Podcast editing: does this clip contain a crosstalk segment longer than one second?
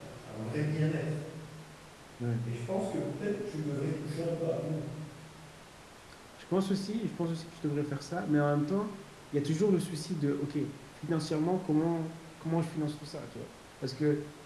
No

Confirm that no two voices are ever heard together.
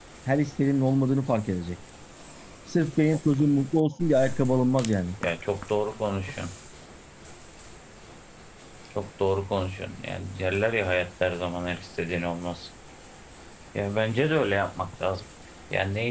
Yes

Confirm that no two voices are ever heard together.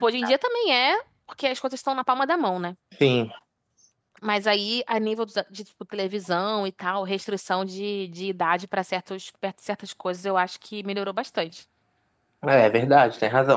Yes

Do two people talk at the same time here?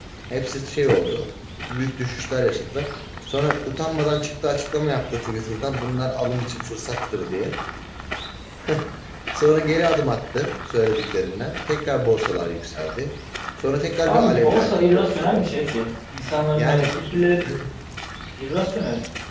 Yes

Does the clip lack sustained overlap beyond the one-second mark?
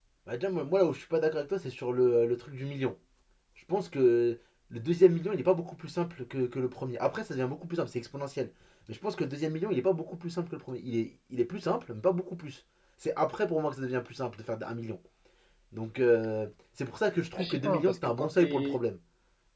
No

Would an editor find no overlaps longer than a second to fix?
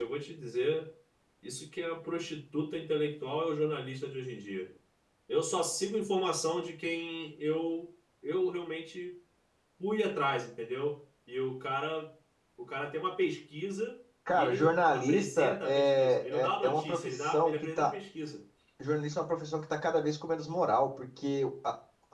No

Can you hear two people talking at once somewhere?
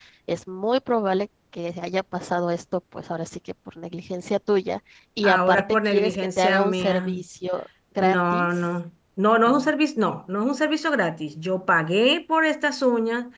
Yes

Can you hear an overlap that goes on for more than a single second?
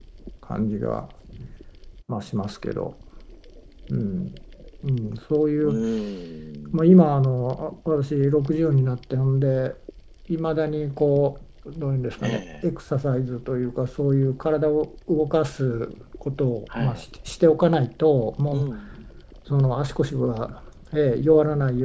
No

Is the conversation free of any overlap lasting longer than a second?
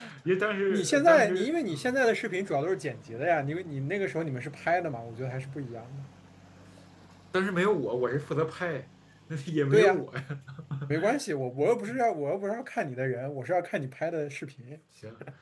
No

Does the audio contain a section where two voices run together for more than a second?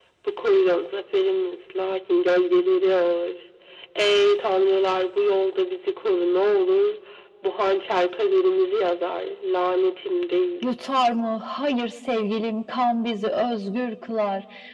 No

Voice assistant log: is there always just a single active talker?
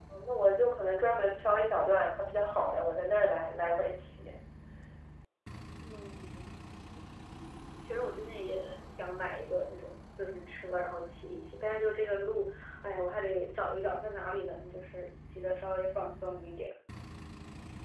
Yes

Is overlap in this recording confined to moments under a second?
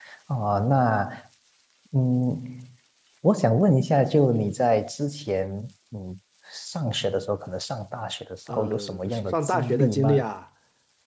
No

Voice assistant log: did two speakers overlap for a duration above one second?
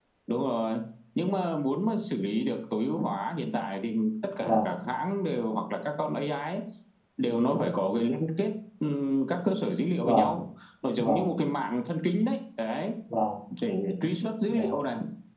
No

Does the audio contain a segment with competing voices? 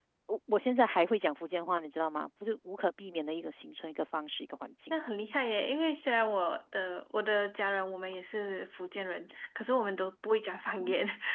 No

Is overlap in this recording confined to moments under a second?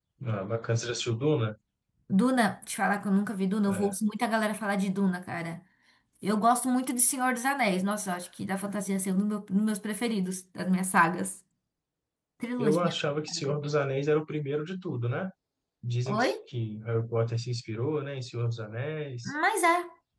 Yes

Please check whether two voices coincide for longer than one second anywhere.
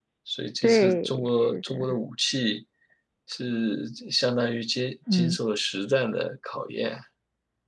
Yes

